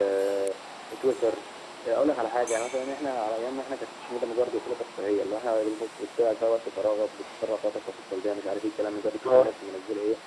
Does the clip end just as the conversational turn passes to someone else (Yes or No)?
No